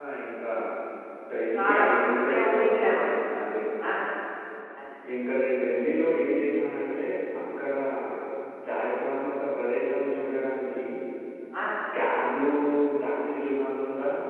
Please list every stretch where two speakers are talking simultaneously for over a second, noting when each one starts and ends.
1.6-3.0

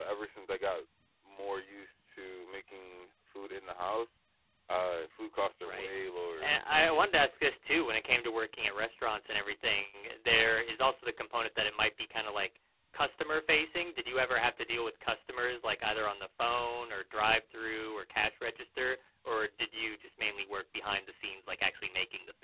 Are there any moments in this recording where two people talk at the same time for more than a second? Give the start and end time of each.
none

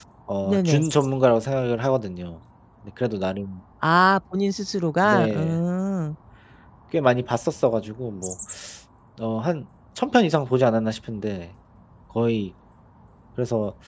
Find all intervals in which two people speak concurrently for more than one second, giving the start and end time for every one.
none

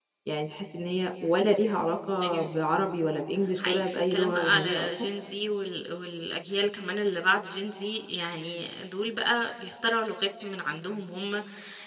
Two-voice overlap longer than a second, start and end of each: 3.6-4.9

